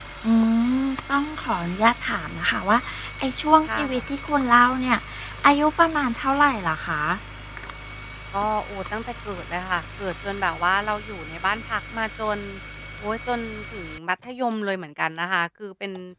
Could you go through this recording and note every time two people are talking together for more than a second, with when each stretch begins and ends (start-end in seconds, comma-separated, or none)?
none